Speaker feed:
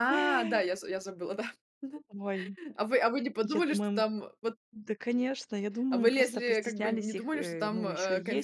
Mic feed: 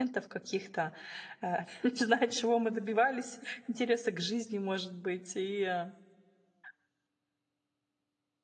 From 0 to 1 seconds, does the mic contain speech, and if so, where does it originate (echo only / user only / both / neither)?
user only